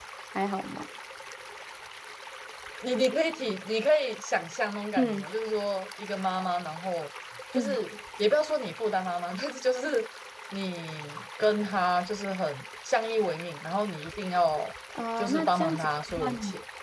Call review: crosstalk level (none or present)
present